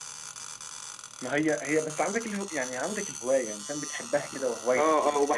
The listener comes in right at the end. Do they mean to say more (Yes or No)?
Yes